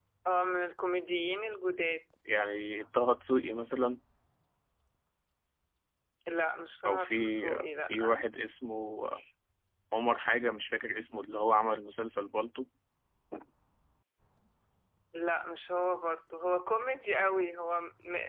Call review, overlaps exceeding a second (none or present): present